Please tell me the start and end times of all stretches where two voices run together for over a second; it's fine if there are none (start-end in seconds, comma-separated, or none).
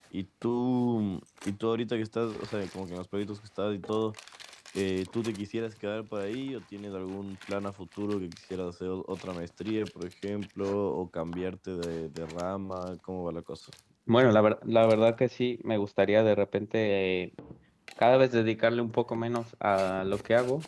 none